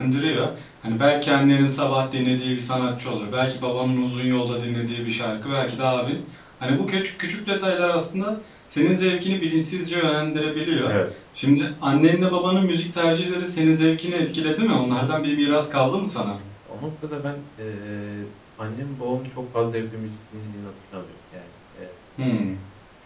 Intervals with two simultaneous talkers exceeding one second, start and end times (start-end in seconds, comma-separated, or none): none